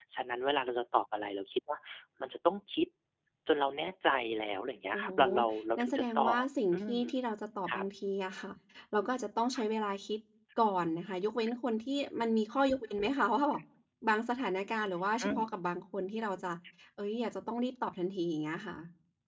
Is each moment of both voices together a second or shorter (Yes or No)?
No